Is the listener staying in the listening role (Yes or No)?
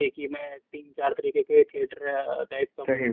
Yes